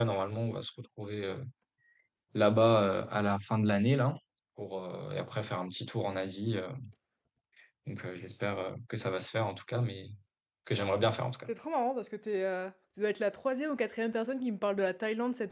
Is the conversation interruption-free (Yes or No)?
Yes